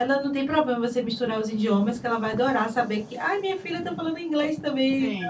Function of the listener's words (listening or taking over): taking over